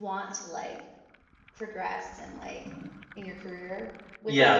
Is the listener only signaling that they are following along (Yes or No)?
No